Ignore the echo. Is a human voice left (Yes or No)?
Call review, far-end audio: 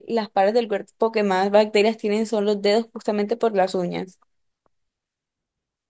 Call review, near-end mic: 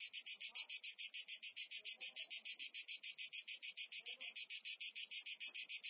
No